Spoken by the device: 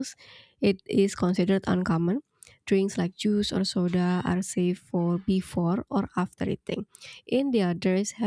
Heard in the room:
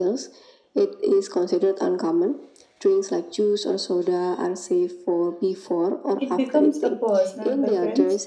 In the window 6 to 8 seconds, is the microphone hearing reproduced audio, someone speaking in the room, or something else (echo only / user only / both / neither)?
both